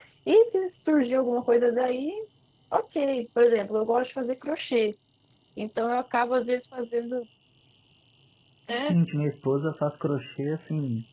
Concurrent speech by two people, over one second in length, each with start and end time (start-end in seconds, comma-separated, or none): none